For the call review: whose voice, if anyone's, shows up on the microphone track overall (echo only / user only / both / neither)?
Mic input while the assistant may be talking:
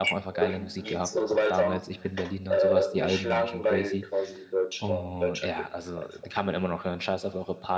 both